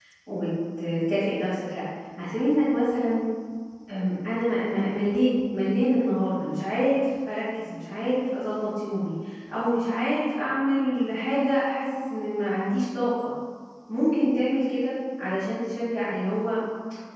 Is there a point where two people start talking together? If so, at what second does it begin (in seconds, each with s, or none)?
none